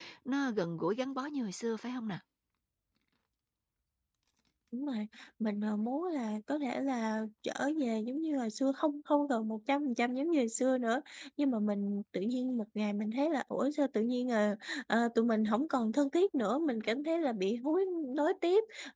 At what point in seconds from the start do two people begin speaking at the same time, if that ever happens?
none

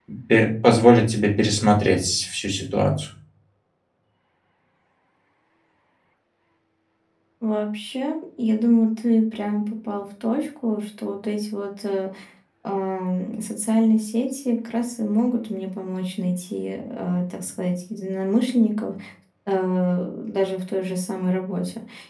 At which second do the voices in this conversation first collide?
none

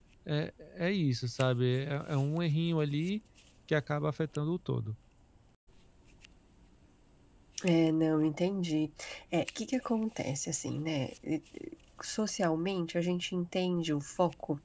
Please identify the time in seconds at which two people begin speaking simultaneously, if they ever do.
none

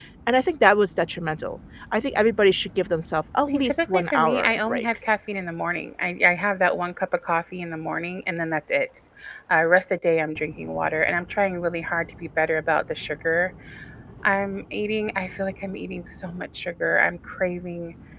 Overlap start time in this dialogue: 3.5 s

